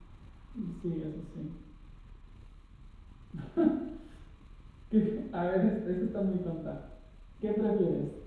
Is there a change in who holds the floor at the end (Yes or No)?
No